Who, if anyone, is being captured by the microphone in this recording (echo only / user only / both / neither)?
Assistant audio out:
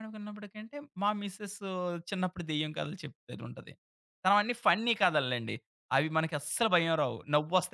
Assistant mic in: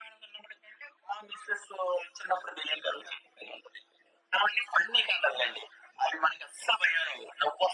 echo only